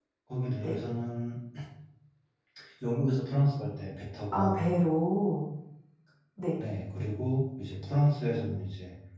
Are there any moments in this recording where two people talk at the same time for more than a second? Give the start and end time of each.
none

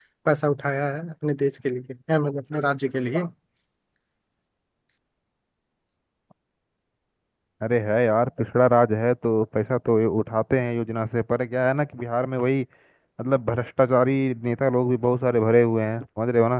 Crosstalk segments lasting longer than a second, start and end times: none

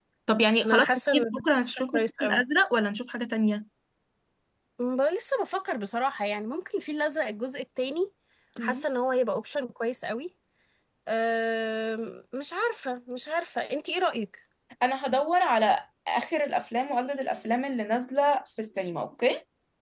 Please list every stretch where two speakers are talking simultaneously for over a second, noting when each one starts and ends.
0.6-2.4

